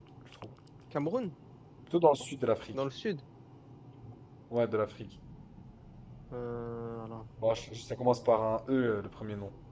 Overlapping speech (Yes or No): No